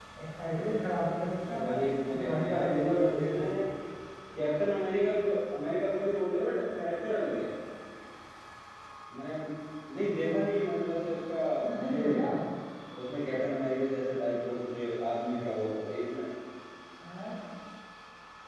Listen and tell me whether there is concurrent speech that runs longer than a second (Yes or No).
Yes